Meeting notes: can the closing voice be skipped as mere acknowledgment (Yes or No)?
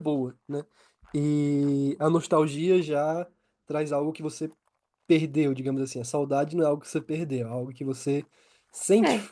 Yes